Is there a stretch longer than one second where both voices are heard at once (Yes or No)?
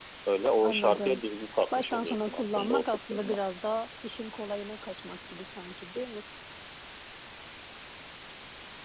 Yes